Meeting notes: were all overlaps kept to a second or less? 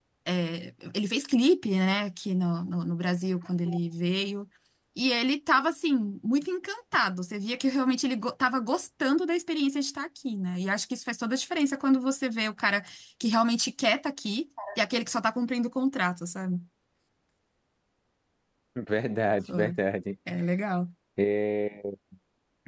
Yes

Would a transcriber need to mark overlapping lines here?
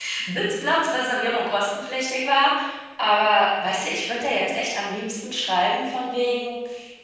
No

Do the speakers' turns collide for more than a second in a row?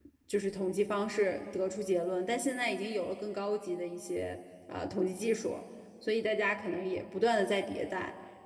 No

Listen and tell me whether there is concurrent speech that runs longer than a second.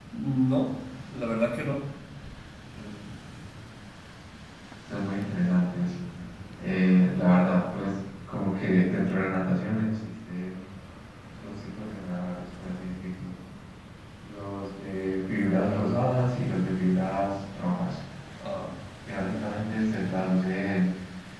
No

